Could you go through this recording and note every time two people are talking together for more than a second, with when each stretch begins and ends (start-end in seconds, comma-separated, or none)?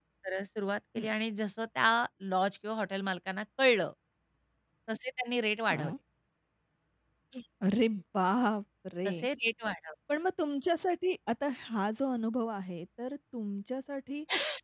none